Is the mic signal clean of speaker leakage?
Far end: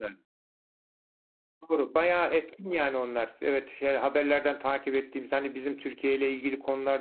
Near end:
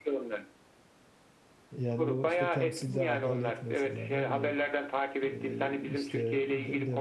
No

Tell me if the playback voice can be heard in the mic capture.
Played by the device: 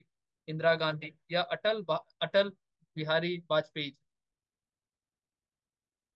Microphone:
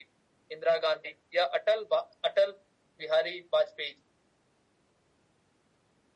Yes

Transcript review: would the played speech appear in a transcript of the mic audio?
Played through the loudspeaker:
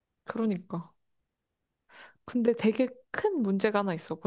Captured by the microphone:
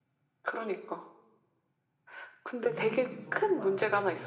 Yes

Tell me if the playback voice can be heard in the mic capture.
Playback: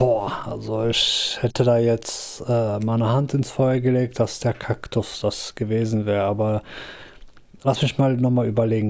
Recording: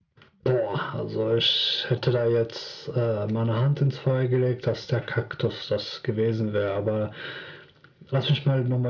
Yes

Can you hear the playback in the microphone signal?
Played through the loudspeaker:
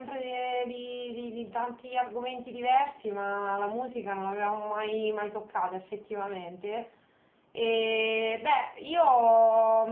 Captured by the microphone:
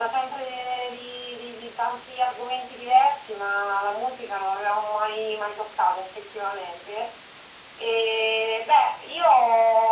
Yes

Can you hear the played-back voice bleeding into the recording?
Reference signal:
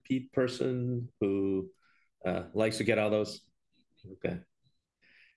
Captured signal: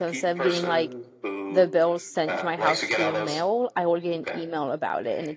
Yes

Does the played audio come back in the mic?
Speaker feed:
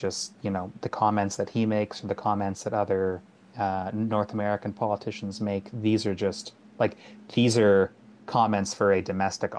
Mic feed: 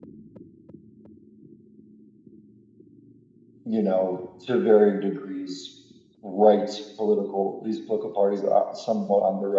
No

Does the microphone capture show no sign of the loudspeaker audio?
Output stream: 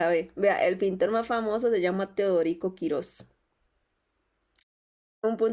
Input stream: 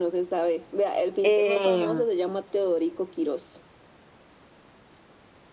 No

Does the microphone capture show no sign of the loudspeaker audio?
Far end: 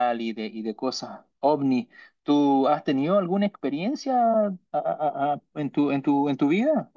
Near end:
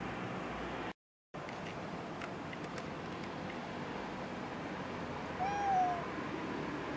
Yes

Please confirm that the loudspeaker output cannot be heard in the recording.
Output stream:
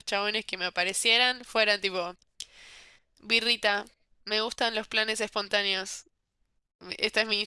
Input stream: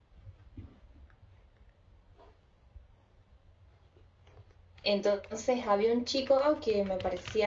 Yes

